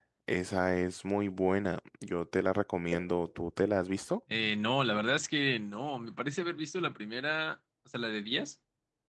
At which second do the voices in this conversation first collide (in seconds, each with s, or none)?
none